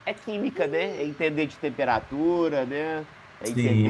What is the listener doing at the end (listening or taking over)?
taking over